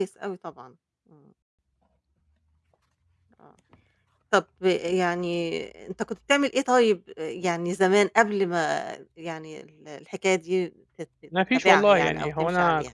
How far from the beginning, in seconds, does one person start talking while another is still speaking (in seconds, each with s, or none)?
11.3 s